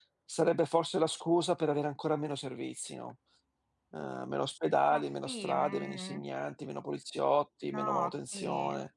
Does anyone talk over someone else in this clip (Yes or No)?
Yes